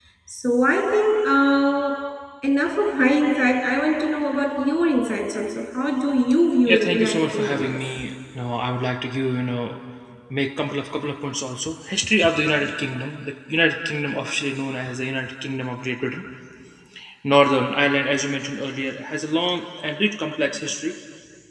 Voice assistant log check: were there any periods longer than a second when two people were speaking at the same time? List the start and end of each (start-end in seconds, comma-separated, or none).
6.7-8.0